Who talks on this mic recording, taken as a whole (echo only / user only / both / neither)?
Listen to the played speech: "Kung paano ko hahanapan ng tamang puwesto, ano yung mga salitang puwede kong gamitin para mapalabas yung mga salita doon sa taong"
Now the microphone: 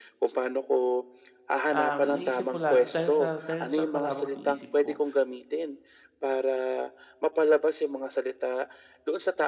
both